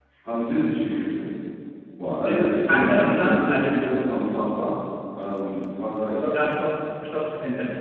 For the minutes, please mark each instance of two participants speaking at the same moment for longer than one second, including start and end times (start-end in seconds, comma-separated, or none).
2.2-3.9